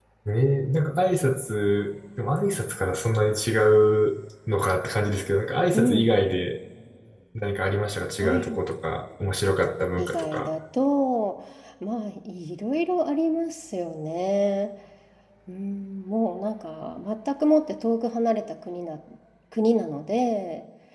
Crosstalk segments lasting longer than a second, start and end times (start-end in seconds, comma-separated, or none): none